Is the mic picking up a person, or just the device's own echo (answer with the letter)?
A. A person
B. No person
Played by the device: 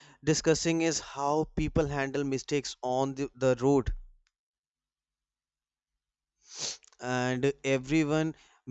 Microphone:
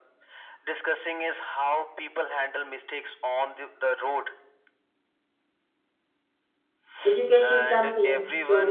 A